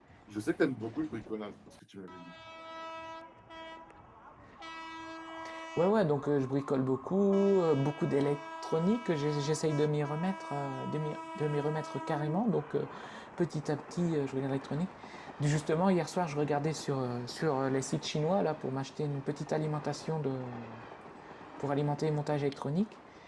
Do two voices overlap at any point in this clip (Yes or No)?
No